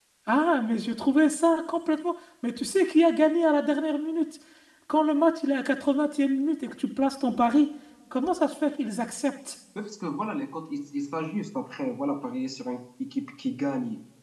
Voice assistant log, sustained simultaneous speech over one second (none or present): none